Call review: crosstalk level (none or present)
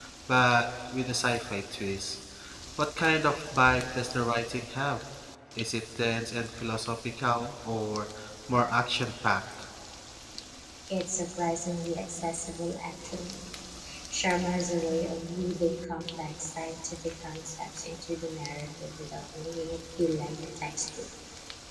none